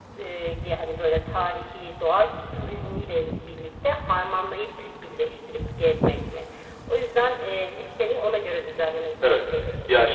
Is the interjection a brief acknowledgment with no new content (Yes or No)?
No